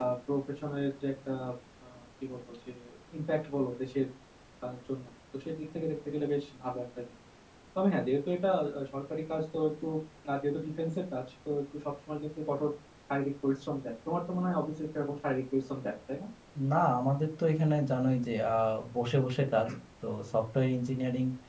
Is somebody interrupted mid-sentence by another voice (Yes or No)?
No